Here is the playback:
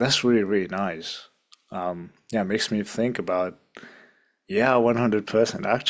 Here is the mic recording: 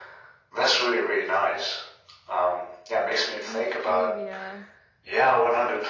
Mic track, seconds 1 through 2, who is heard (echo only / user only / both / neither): echo only